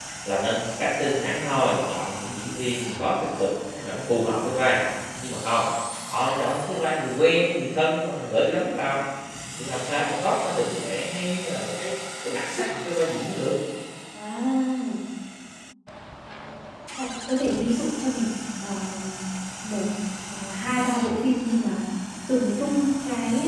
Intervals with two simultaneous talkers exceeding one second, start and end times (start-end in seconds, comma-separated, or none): none